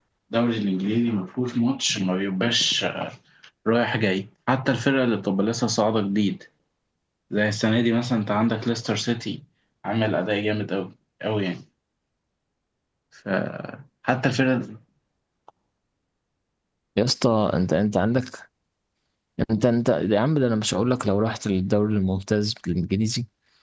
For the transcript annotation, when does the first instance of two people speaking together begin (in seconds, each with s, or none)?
none